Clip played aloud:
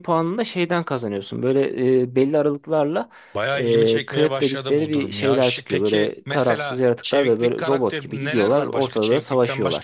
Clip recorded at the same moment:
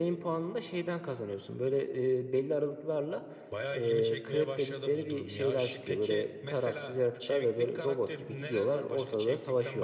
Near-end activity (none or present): none